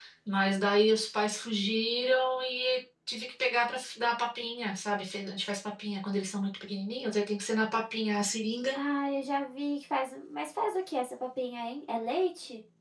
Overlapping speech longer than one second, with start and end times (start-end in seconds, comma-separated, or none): none